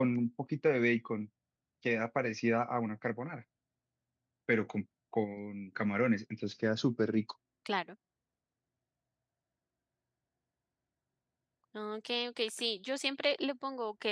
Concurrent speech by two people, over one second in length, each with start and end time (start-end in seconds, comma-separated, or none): none